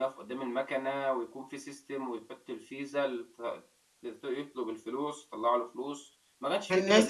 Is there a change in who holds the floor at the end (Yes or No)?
Yes